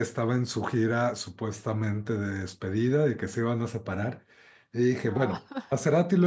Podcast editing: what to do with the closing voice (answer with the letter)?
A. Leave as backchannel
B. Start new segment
A